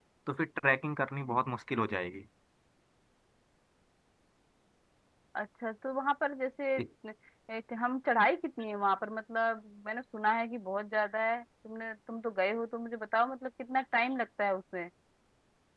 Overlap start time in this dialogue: none

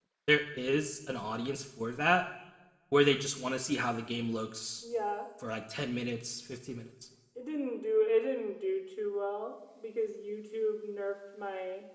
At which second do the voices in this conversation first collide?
none

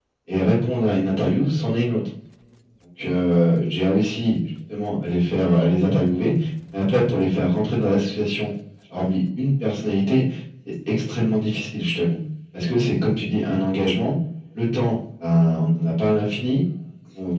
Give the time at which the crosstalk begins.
none

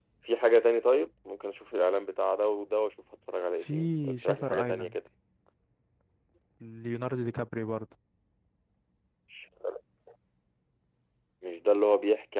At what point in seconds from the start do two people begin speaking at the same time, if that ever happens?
3.6 s

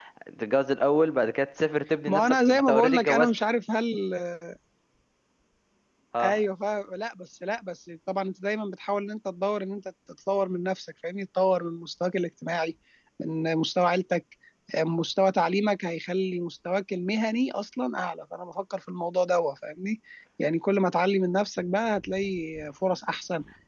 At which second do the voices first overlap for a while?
2.1 s

